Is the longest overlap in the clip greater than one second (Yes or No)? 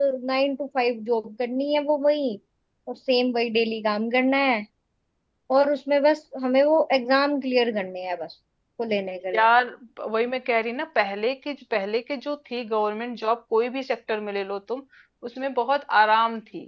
No